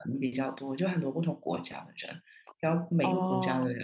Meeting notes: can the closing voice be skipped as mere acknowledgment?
Yes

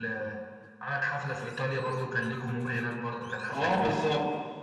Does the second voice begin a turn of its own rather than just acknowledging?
Yes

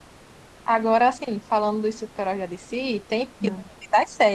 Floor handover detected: No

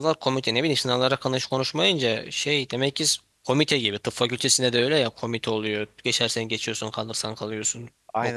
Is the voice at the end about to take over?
Yes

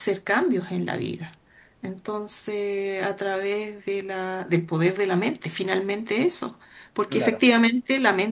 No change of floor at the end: Yes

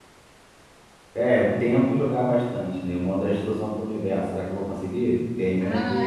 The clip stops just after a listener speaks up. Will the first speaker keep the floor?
No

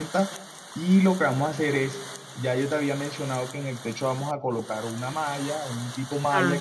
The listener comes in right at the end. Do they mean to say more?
No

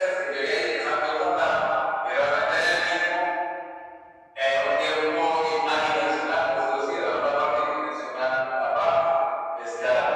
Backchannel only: Yes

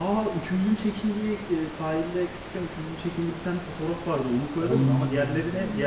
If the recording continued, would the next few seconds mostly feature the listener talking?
No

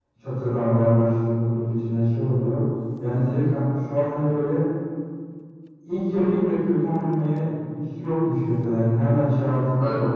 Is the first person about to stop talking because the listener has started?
No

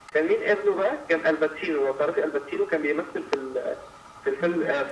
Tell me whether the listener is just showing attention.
Yes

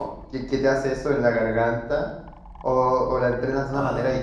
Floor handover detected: Yes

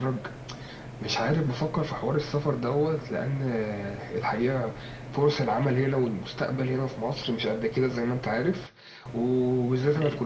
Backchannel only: Yes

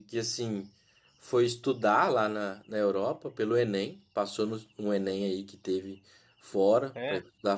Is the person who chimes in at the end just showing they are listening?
Yes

